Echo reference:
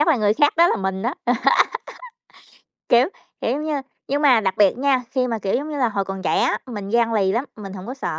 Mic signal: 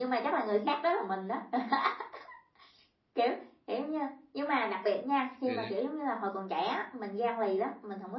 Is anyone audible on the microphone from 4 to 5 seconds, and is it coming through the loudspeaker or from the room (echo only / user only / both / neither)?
echo only